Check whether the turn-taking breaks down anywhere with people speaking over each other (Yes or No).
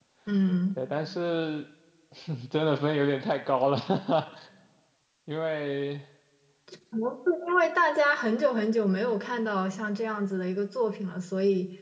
No